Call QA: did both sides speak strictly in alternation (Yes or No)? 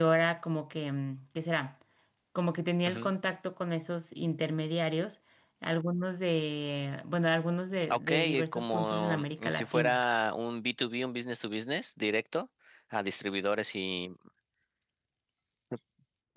No